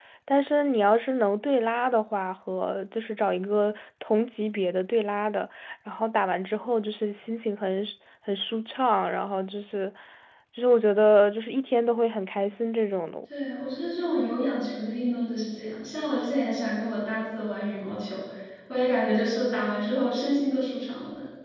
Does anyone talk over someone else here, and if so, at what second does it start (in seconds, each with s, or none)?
none